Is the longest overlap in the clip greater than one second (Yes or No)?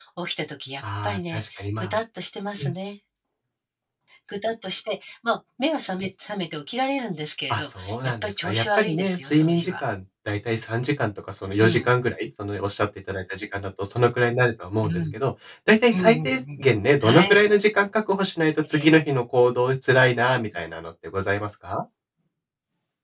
Yes